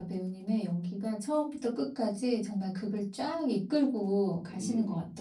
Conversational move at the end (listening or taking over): taking over